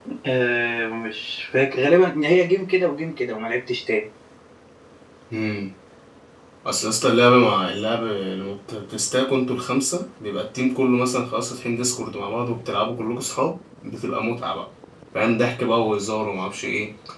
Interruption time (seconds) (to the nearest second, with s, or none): none